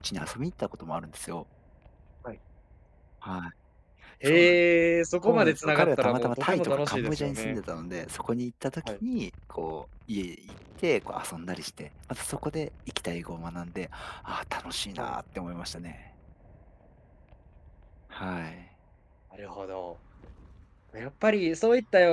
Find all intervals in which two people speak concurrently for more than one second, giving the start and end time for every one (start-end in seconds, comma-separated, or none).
5.2-7.6